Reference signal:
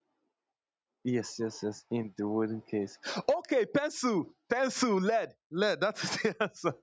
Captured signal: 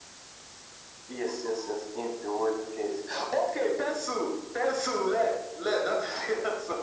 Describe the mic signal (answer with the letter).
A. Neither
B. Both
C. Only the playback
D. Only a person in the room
C